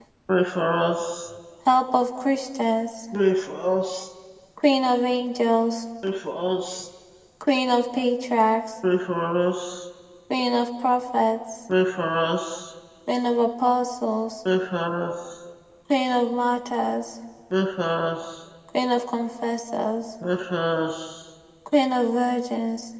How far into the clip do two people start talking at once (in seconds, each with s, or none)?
none